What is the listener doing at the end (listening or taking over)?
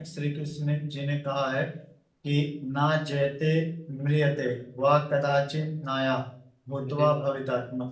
listening